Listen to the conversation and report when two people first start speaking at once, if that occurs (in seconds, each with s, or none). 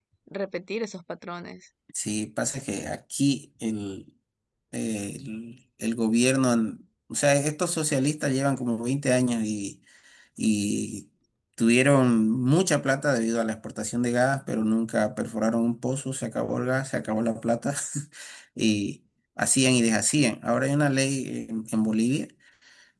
none